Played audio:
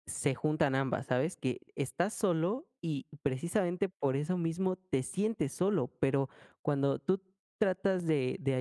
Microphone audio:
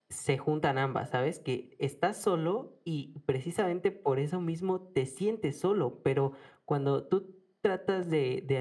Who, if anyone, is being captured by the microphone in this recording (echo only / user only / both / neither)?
echo only